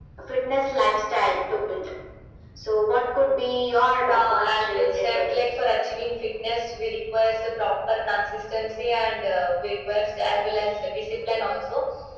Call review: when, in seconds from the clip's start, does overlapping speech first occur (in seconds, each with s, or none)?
4.0 s